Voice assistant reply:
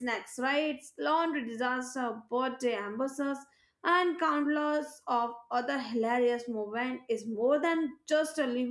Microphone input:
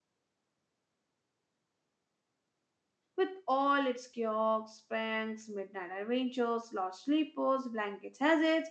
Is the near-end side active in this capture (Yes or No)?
Yes